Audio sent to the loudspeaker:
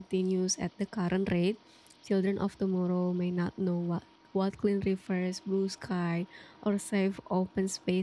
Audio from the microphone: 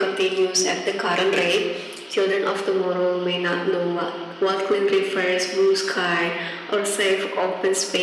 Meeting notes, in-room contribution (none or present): none